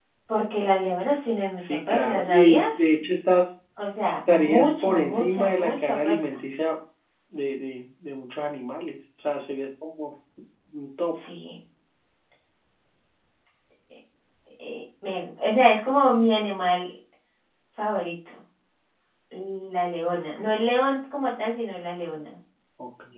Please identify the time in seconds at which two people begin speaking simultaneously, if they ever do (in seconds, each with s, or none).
1.6 s